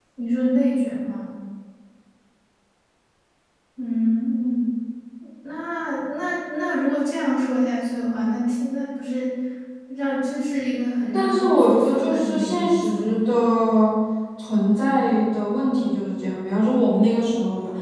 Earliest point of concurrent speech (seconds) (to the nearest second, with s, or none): 11 s